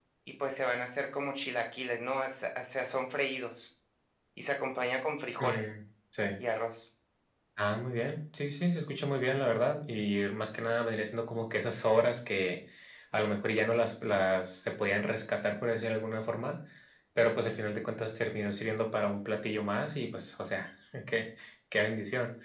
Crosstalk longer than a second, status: none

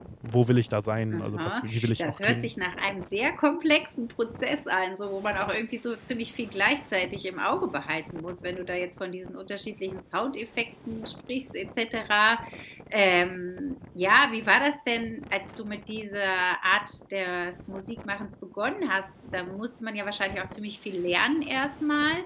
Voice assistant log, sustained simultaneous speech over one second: present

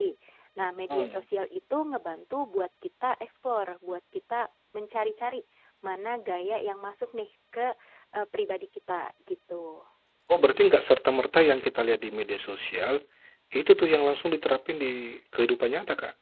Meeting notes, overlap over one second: none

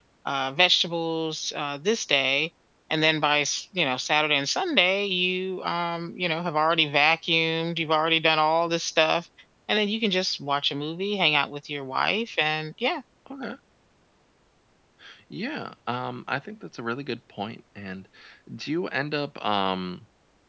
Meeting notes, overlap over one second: none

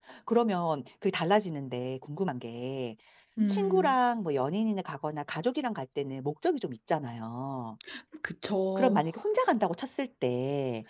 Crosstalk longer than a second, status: none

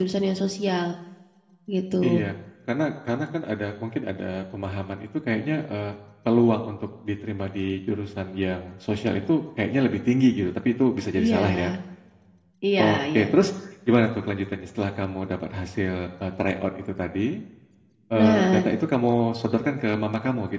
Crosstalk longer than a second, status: none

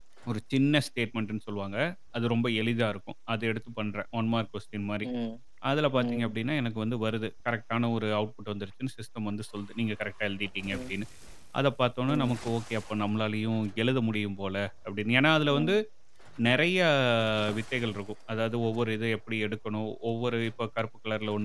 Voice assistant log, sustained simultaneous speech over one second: none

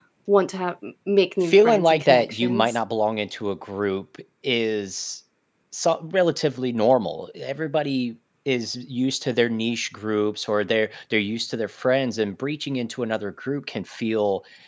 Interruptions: present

